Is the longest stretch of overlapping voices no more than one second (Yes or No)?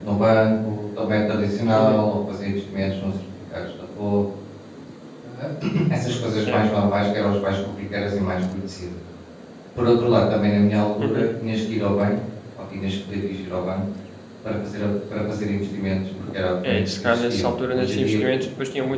No